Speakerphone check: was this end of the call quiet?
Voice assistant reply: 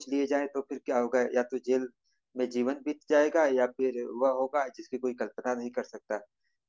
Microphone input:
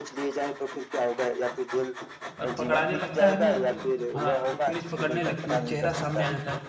No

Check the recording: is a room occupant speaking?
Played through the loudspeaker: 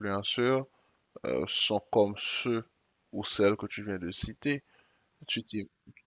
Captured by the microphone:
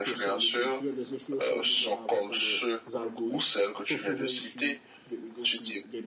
Yes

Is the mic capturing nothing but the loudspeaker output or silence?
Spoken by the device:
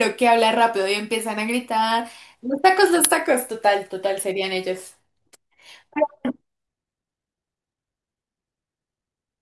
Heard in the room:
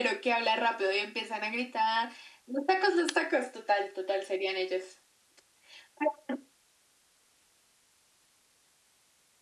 Yes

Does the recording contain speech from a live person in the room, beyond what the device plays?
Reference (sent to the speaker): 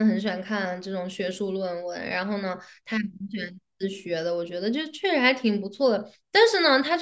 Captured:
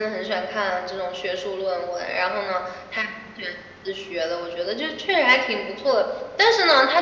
No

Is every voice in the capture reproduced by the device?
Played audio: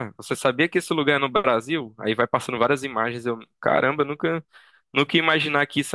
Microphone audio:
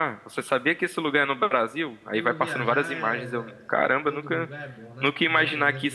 No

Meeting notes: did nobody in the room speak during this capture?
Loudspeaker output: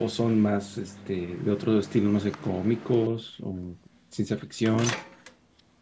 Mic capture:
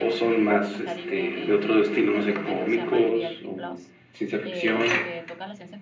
No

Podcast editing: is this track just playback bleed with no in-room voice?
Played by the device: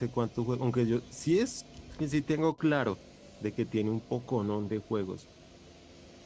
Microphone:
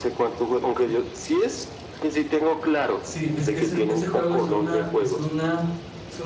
No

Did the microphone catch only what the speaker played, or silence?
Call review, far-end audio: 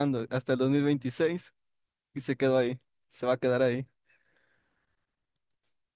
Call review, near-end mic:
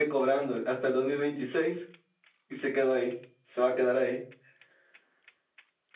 Yes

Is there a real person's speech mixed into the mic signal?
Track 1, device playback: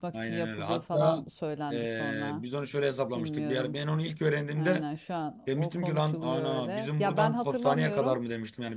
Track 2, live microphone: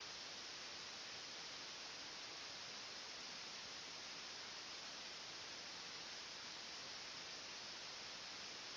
No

